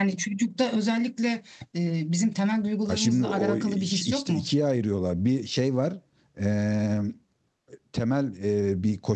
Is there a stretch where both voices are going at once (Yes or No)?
Yes